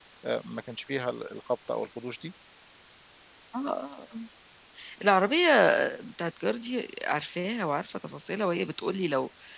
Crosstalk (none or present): none